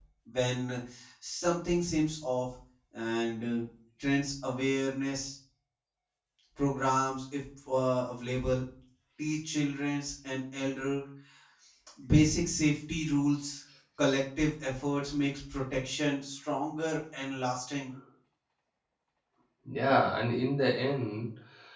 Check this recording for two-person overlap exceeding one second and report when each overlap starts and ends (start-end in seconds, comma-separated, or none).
none